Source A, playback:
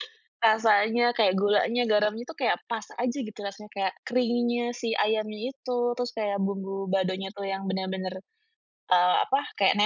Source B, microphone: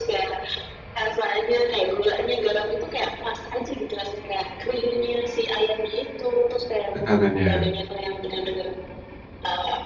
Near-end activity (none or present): present